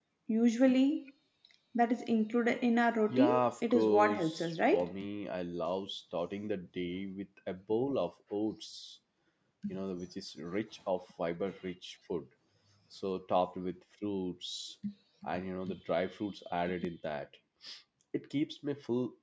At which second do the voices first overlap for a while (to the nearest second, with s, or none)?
3 s